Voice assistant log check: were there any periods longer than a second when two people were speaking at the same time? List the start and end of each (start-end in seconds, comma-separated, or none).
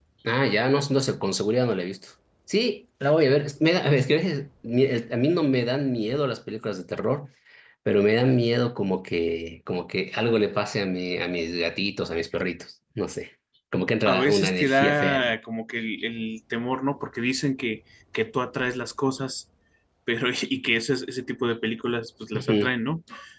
14.1-15.3